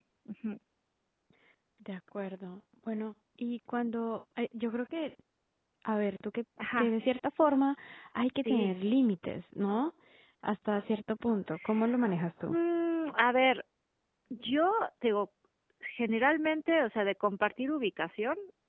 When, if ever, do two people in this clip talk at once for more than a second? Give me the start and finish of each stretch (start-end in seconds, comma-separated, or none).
none